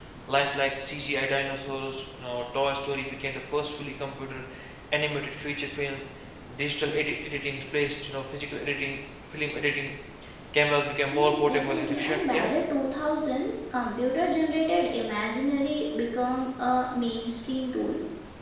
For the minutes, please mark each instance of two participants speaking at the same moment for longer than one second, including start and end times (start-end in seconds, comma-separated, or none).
11.1-12.5